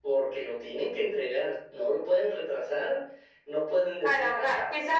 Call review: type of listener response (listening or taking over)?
taking over